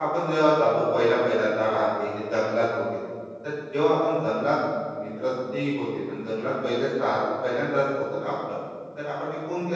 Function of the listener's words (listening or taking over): listening